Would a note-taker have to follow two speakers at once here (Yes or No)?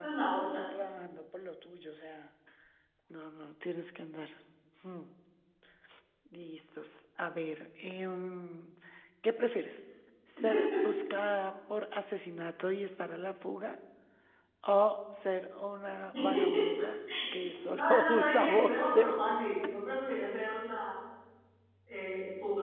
Yes